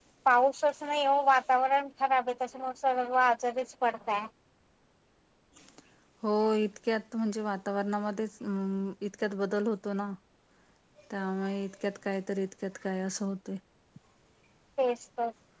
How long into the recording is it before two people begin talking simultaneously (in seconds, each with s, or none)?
none